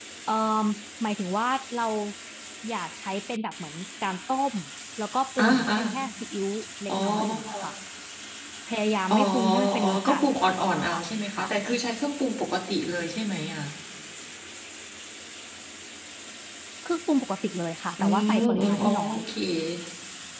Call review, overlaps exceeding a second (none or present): present